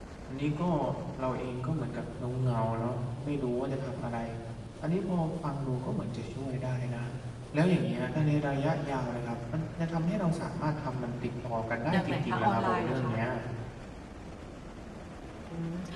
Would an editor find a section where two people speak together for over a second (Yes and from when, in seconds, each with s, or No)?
Yes, from 11.9 s